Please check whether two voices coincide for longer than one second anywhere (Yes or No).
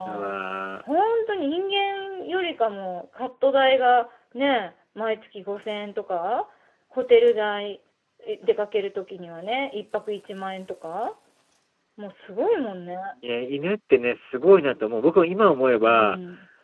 No